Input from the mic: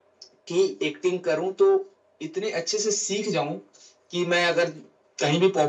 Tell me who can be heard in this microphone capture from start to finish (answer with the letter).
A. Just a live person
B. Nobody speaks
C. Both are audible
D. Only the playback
D